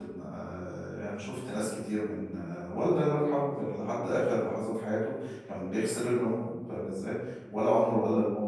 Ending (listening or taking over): listening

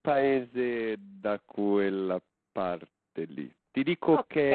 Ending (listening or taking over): listening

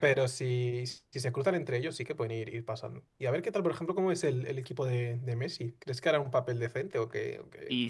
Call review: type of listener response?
taking over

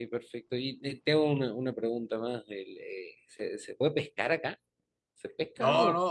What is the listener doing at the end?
taking over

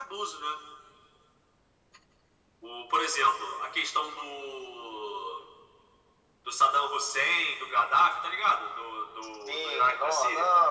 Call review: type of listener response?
taking over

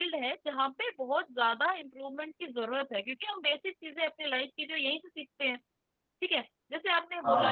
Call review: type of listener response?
listening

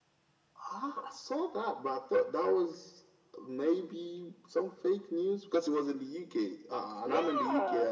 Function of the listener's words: listening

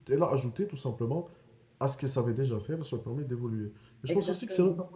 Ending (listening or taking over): listening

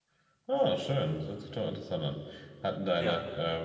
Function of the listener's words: listening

